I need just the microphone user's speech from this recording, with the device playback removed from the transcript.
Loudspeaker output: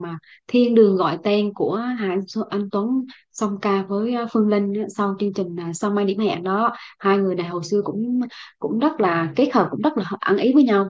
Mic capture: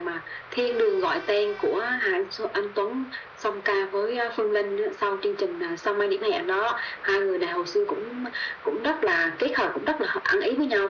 none

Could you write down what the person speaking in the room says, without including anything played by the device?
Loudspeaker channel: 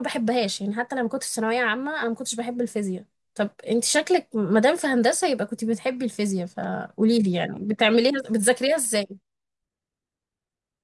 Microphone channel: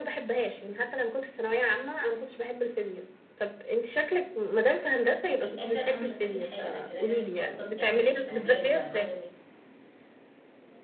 وفي الاخر انا مش هستفيد حاجه انا كده كده مش هتخصص يعني مش معماري ولا مدني

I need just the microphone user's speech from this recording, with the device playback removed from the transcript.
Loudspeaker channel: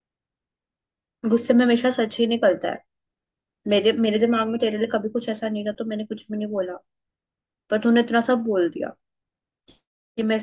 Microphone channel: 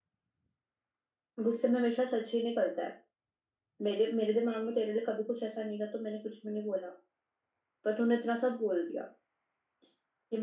none

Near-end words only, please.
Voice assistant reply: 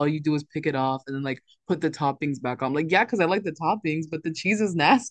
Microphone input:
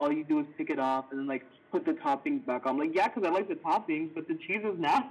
none

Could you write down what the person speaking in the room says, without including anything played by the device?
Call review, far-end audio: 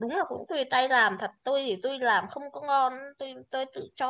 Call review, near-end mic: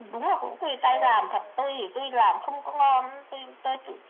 rồi ờ,

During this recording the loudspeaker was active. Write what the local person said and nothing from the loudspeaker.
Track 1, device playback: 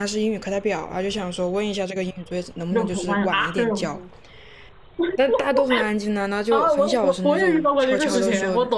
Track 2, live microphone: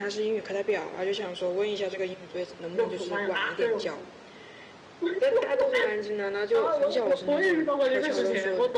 none

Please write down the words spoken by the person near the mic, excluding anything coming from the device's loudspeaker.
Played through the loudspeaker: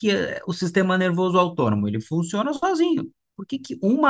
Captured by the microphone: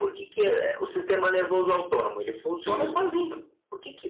uhum.

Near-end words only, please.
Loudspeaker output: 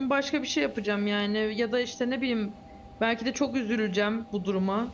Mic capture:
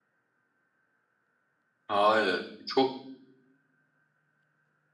Hayır. Çok

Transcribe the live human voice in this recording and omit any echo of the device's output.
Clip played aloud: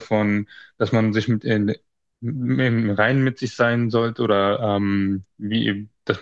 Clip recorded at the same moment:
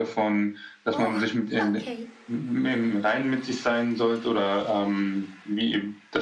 Oh, okay,

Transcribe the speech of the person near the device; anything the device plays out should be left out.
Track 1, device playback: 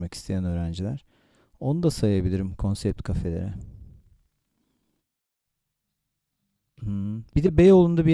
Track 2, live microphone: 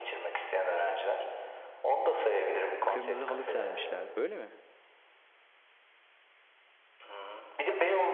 Kırmızı halı sermişler. Öyle mi?

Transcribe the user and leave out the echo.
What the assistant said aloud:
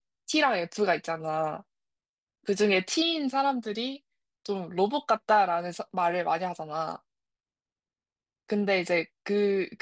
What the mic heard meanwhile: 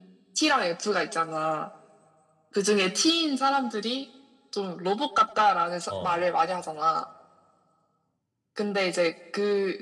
어,

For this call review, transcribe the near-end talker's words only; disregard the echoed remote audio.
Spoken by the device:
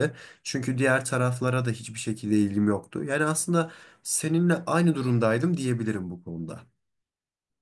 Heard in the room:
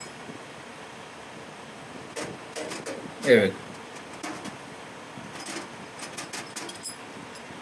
Evet.

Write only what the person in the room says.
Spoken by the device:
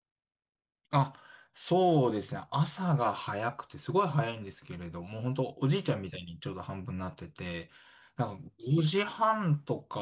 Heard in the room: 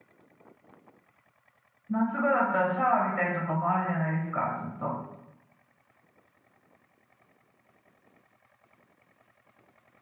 夏場だったらシャワー浴びたりとかもあるじゃないですか、ちょっと。

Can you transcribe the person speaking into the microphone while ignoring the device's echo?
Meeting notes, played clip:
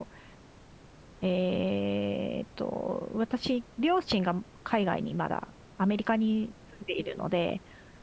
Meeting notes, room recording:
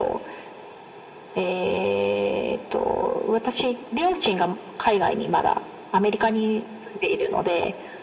none

